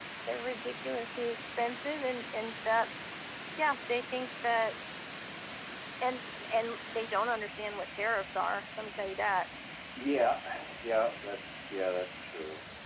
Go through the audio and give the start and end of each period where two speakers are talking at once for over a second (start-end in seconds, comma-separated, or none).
none